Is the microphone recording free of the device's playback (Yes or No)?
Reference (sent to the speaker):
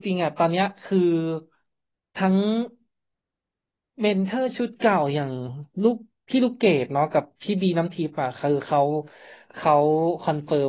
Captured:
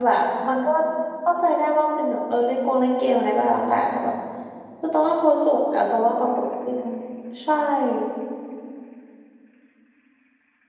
Yes